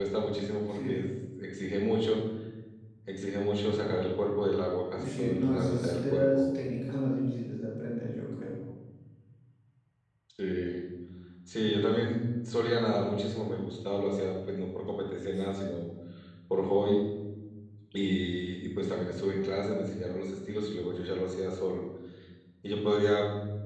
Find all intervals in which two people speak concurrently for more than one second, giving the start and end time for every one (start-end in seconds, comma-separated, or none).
5.0-6.4